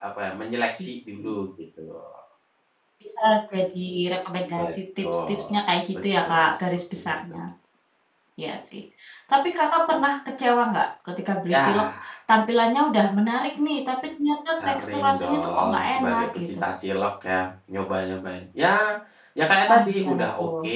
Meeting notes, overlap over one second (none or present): present